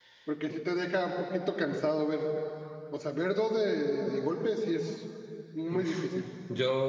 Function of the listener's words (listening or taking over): taking over